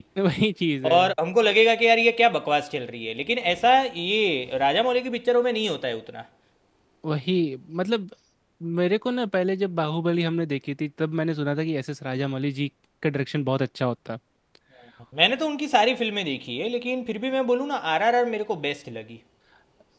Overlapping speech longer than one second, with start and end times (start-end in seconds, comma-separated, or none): none